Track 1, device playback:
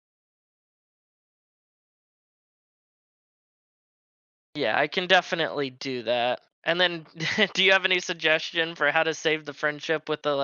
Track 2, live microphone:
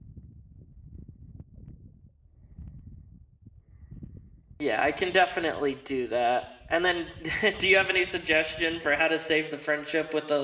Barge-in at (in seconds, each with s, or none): none